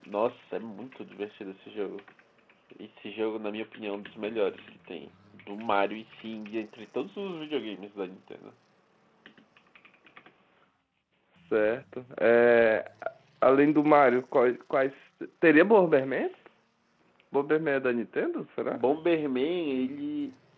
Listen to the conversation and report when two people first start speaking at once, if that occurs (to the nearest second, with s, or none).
none